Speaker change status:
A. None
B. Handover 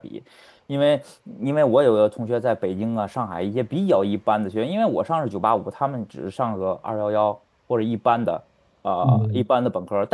A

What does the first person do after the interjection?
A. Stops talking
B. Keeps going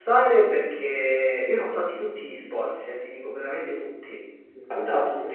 B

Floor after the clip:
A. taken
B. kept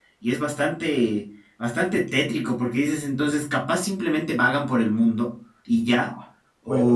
A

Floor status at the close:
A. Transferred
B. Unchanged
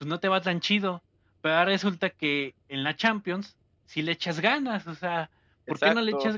B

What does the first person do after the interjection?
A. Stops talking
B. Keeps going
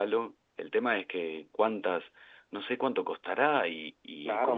A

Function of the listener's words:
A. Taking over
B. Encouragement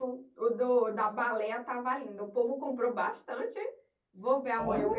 B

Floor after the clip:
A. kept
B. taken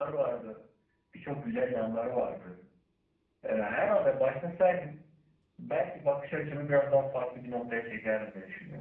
B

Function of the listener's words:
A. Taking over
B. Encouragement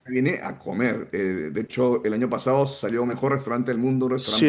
A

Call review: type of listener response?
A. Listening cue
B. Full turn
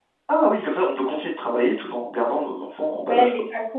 B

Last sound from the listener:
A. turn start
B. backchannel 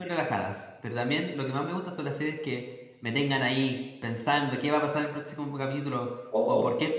B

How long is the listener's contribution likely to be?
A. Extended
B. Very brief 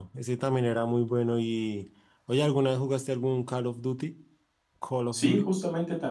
A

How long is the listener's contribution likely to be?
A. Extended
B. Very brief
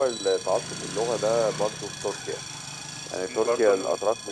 B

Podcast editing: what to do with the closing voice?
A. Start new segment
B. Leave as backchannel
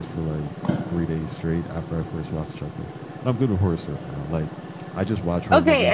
A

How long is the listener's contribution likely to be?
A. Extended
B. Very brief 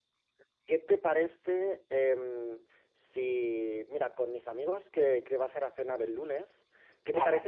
B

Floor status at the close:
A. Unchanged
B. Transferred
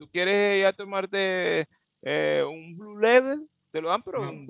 A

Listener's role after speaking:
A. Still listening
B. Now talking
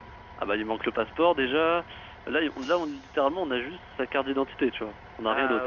B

